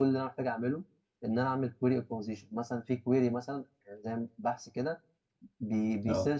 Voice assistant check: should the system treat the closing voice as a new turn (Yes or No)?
No